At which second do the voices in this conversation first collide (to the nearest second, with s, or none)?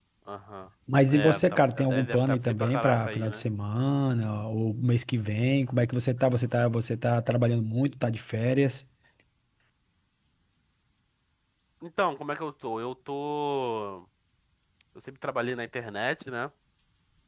1 s